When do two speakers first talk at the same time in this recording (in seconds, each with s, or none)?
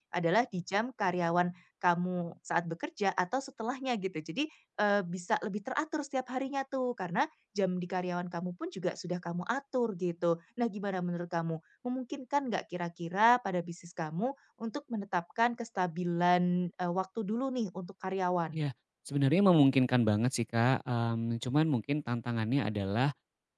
none